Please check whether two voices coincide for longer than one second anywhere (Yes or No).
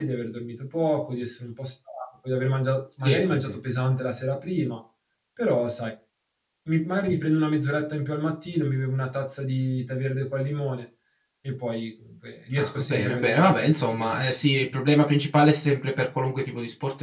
Yes